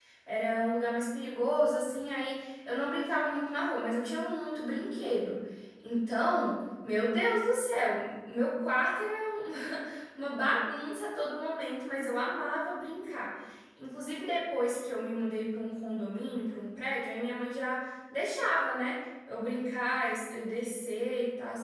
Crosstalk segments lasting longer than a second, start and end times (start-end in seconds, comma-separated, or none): none